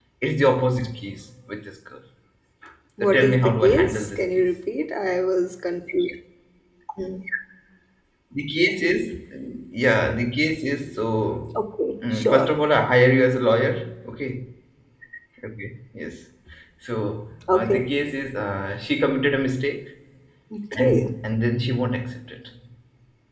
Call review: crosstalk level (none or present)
present